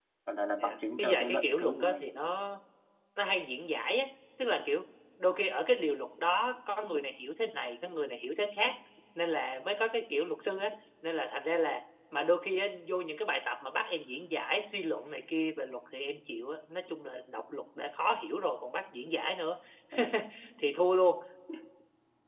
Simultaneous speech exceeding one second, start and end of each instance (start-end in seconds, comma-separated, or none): 0.6-2.0